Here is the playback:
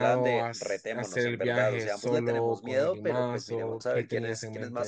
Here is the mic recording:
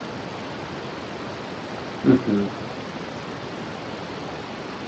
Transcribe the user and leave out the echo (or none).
Ujú.